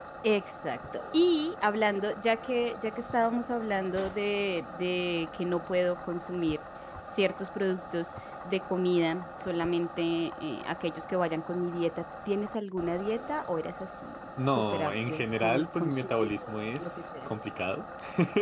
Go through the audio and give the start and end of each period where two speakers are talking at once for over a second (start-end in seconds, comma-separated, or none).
14.6-16.3